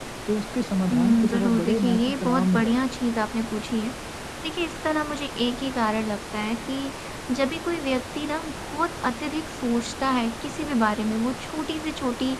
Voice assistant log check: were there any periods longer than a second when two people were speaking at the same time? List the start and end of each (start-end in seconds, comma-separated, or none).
0.9-3.0